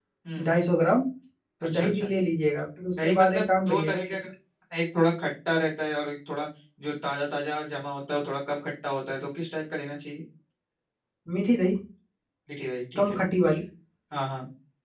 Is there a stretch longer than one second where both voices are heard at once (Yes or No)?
Yes